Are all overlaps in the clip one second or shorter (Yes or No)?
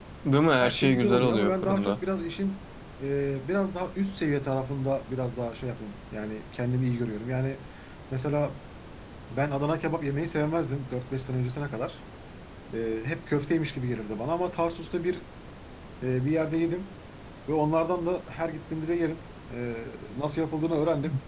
No